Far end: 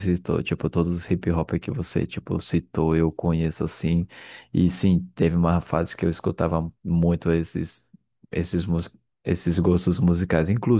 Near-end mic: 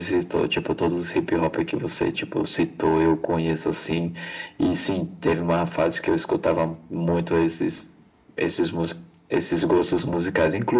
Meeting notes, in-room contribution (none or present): none